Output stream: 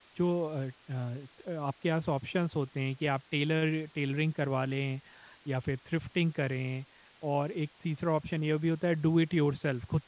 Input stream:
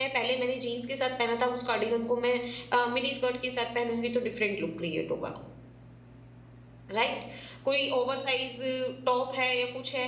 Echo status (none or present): none